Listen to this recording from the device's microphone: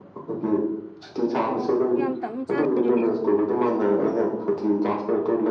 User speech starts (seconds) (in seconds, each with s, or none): 1.5 s